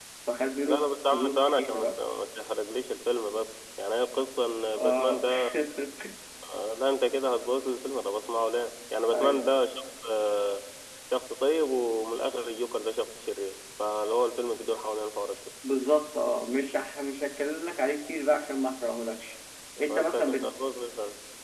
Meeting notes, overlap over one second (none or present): present